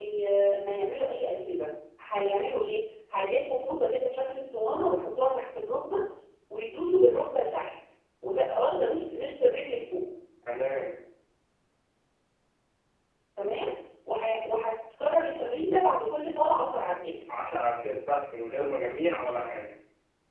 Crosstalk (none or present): none